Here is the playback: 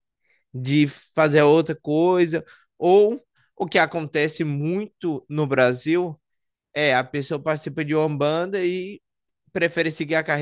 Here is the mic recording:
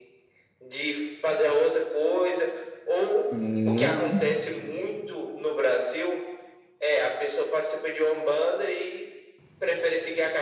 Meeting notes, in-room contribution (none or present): present